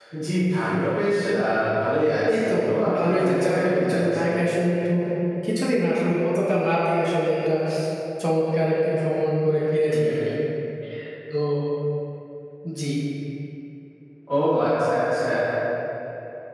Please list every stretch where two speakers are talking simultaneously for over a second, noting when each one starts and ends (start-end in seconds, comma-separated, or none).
3.0-4.2